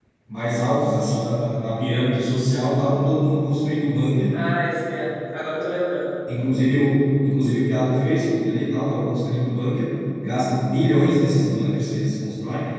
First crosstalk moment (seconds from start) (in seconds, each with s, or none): none